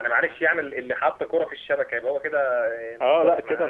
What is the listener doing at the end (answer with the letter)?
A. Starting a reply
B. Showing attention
A